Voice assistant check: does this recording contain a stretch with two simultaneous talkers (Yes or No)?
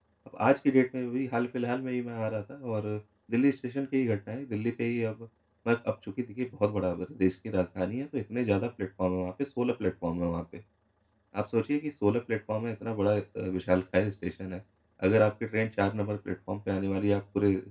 No